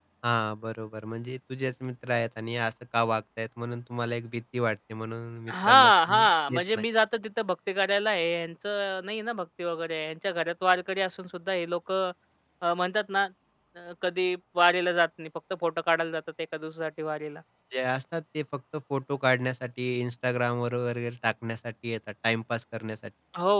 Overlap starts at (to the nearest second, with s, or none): 5 s